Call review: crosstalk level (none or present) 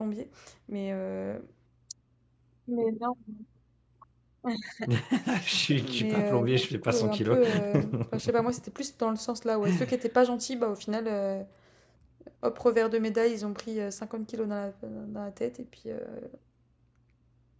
present